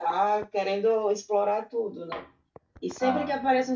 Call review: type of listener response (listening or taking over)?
listening